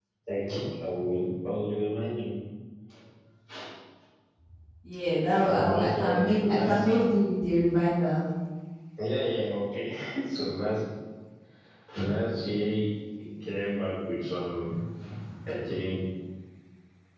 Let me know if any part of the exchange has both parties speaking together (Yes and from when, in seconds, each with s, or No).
Yes, from 5.4 s